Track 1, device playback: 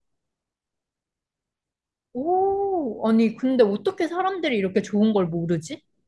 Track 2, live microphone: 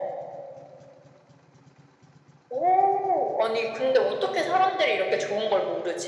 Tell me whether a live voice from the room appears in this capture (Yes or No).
No